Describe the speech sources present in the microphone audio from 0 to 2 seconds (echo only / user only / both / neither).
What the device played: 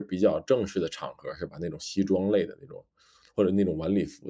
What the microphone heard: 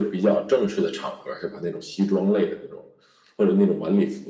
echo only